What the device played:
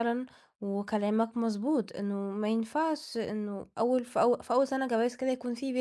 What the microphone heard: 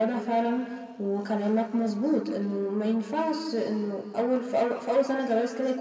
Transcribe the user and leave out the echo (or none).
none